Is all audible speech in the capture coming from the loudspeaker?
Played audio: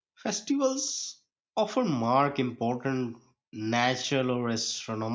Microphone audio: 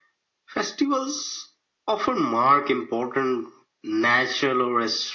Yes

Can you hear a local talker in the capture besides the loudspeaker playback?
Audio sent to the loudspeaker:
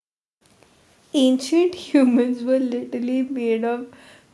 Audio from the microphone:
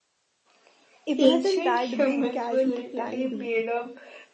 Yes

